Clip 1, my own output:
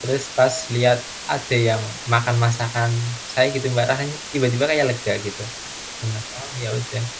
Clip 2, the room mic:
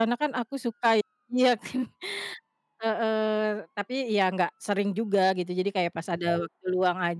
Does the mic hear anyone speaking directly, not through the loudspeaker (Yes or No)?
Yes